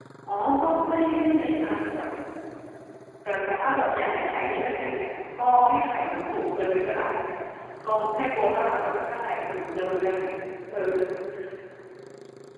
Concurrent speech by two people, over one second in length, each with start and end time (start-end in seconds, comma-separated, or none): none